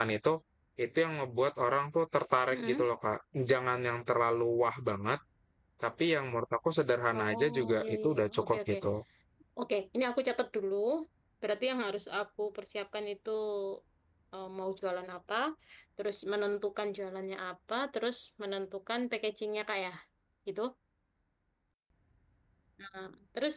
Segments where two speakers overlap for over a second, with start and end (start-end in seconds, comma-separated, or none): 7.2-8.8